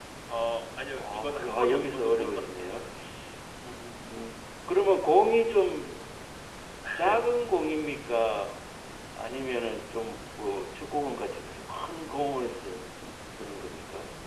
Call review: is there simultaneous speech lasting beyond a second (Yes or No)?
Yes